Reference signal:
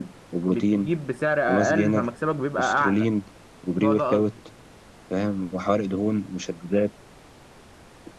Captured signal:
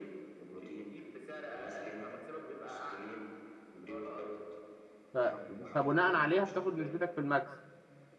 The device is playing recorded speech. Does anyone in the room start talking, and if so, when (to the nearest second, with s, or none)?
5 s